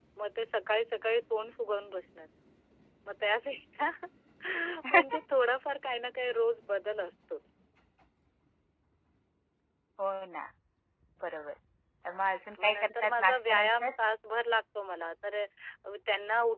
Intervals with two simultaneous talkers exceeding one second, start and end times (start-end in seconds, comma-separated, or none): 12.6-13.9